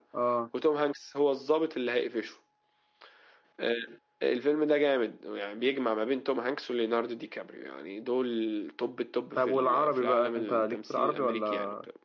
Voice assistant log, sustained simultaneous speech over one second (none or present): present